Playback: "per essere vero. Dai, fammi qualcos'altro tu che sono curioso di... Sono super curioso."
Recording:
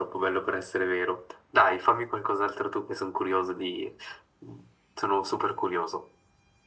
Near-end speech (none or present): none